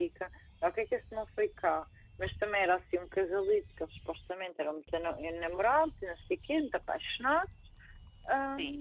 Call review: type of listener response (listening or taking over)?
listening